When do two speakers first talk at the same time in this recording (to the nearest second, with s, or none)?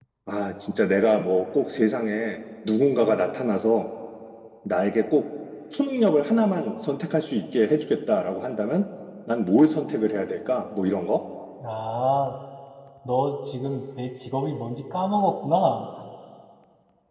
none